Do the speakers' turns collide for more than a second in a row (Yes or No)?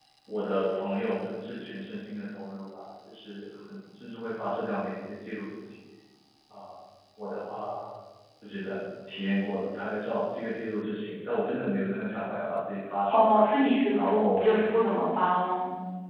No